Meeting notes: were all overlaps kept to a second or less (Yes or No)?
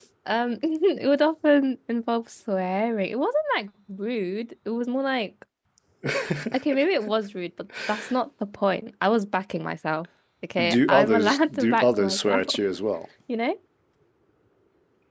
No